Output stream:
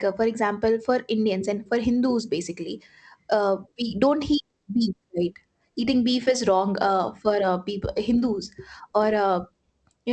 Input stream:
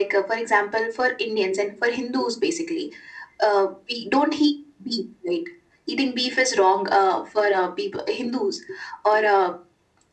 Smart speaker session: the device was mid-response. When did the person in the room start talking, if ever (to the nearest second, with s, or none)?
none